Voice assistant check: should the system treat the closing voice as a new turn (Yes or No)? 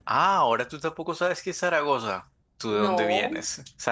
No